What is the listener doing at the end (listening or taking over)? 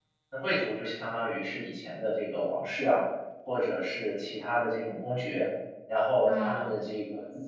listening